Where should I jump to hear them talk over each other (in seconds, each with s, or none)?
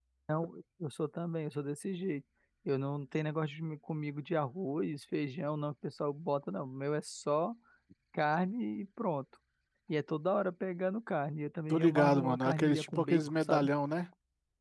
11.7 s